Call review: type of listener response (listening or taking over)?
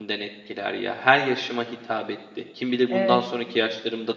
listening